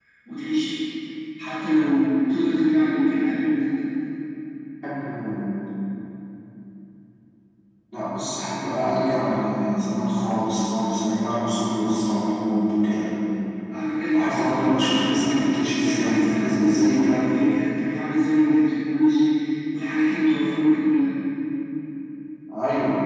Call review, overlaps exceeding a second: present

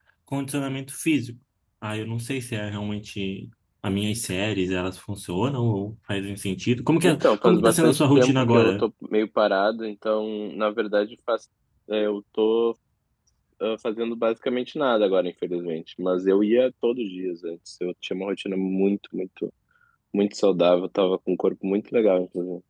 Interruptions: present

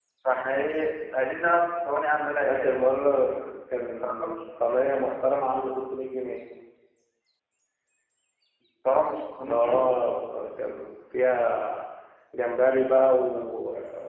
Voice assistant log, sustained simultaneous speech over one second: none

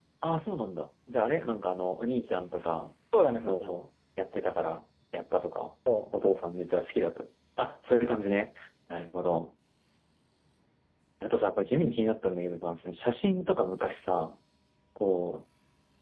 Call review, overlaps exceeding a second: none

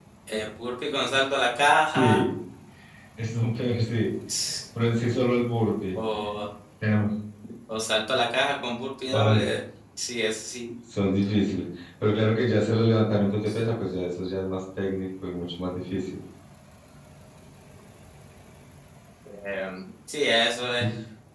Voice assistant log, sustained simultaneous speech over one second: none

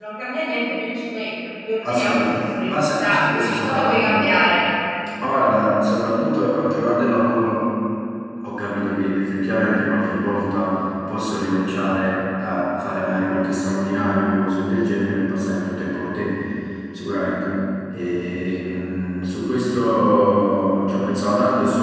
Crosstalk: present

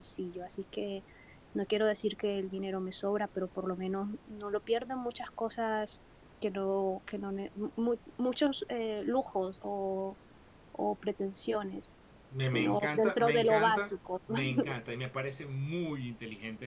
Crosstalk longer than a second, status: present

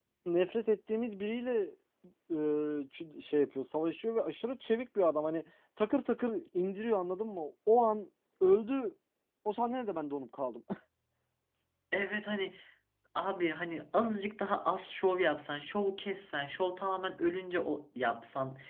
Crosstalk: none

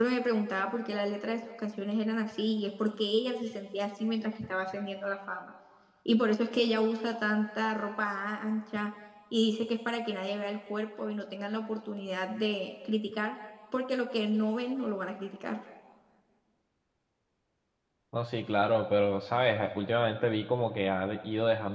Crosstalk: none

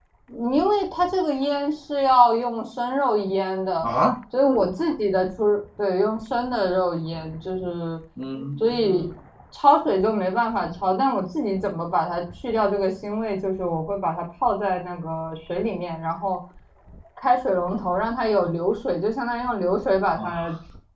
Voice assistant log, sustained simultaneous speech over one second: none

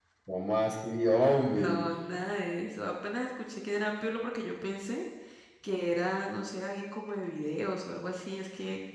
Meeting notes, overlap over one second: none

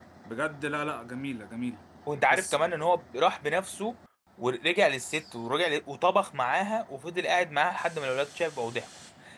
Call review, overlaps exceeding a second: none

